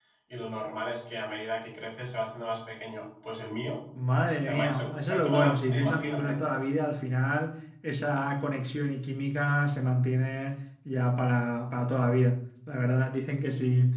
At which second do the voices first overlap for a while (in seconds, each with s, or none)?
4.2 s